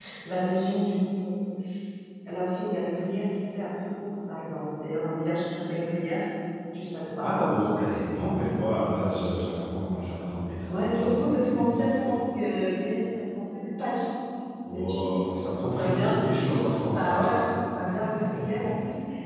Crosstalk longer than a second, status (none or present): present